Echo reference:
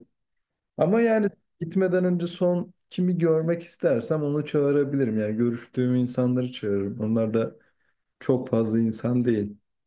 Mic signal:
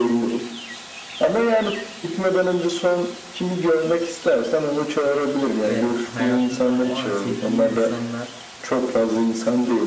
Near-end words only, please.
Ve hayatımda o an sevdiğim insanlar

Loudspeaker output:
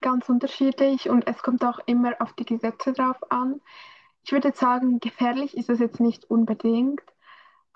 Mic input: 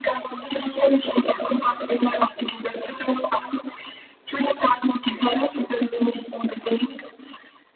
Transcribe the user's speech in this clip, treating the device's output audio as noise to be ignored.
none

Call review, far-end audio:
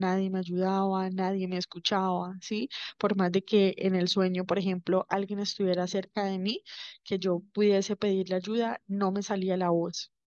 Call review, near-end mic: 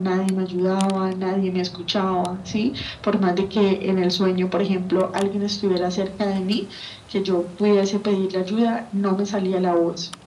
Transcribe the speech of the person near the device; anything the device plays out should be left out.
none

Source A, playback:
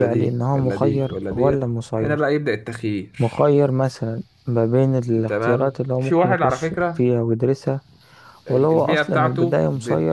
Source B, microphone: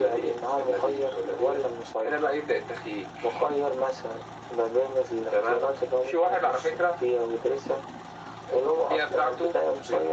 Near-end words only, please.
none

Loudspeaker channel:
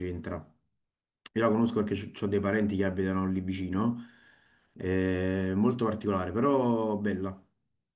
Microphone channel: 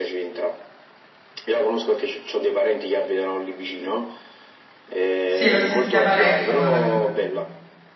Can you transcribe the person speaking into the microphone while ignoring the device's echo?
sì, l'ho sentita parecchio Malaga.

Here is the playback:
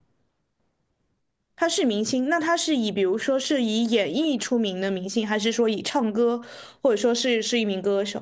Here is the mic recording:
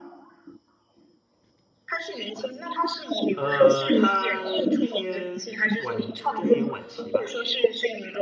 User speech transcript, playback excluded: 呃，他偏晚中年晚期吧，

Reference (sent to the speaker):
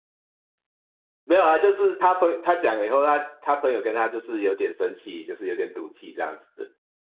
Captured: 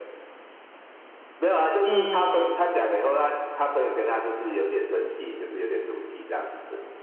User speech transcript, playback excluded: 嗯

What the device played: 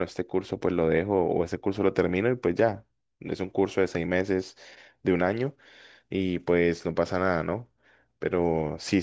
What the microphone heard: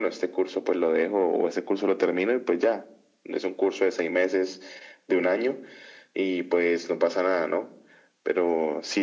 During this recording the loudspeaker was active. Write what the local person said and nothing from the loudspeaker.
none

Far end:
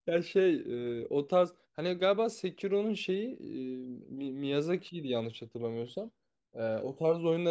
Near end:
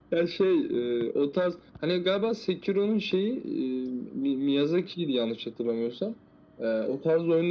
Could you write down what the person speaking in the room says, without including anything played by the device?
none

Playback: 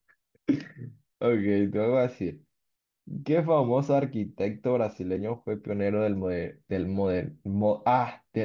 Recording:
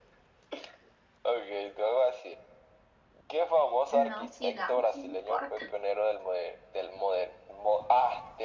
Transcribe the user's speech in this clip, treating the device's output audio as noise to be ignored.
no, sigamos, no importa.

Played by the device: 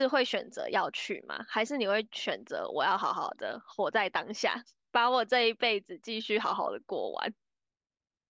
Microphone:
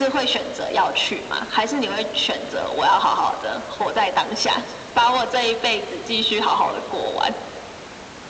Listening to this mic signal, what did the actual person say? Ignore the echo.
none

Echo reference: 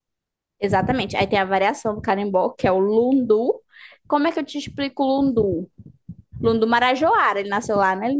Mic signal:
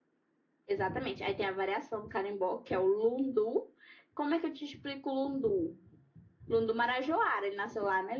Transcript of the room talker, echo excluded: none

